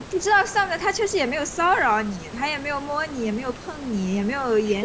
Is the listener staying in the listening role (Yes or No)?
No